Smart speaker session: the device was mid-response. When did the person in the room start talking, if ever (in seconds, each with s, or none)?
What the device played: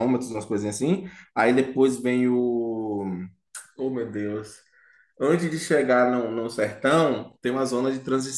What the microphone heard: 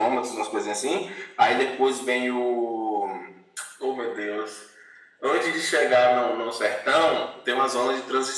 none